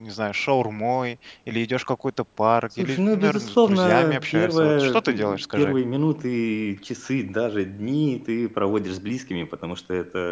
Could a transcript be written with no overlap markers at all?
No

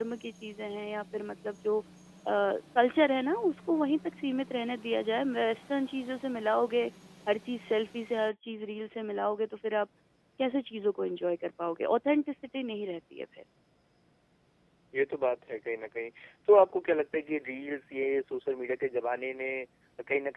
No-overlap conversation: Yes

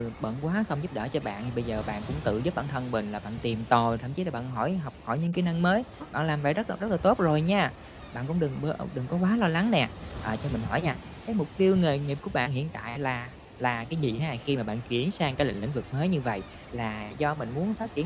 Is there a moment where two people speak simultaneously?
No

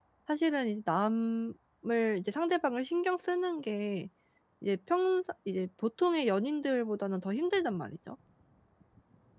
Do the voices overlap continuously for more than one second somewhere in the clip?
No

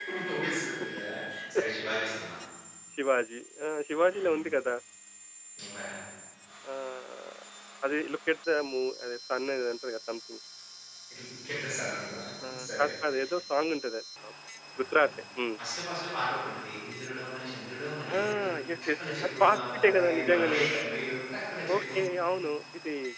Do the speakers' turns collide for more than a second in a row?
Yes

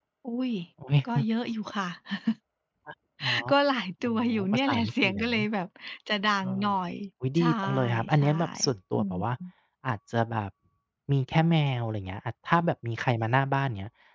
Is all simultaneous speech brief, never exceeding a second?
No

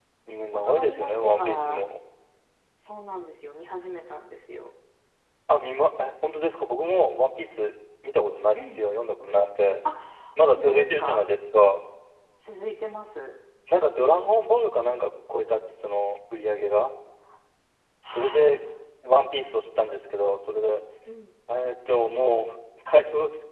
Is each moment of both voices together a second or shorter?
No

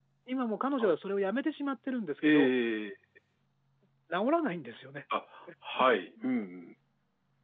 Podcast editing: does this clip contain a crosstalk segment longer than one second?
No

